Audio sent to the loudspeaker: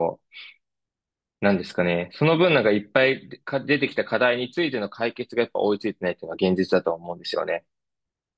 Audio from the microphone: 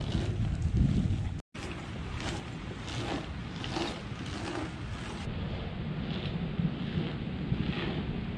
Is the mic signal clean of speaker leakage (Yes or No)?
Yes